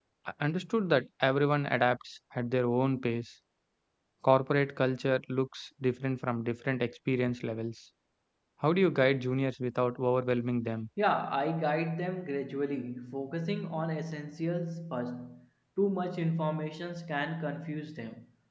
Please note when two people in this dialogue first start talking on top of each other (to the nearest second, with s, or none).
none